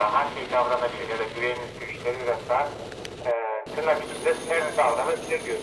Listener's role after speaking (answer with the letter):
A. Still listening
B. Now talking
B